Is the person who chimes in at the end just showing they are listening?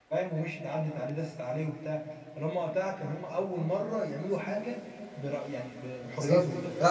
No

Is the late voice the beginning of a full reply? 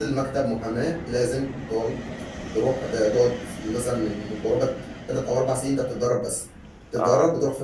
No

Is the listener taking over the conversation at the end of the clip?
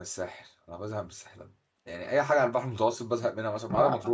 No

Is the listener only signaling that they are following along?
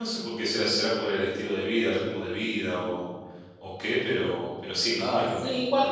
No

